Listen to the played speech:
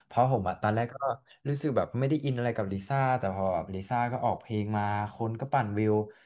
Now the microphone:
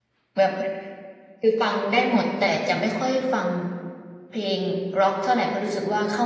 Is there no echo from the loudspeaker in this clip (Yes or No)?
Yes